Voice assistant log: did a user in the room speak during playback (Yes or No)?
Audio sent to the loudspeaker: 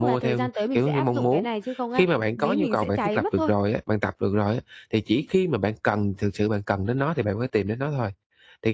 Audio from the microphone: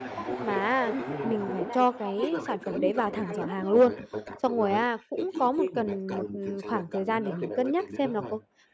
Yes